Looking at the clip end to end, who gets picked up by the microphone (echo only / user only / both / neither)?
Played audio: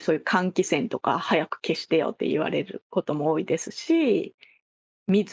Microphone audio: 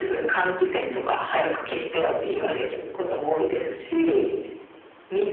echo only